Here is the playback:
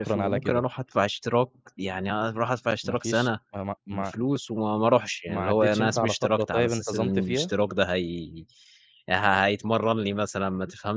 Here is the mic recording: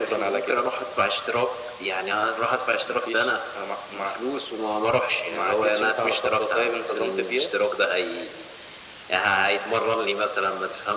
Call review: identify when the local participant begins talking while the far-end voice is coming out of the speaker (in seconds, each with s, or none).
none